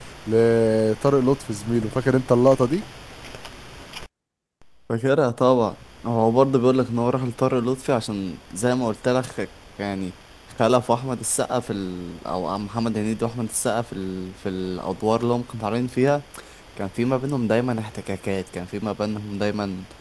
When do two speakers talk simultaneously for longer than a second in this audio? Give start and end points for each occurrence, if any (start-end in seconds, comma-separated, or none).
none